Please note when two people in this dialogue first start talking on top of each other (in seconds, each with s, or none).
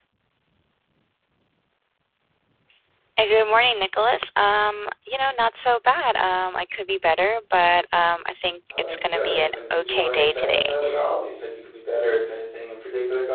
8.7 s